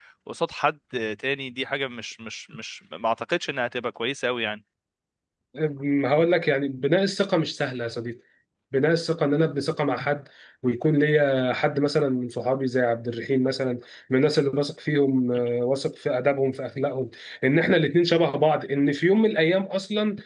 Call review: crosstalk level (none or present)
none